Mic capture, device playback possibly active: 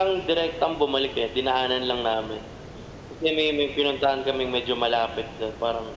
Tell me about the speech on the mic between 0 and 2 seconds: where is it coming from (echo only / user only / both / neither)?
echo only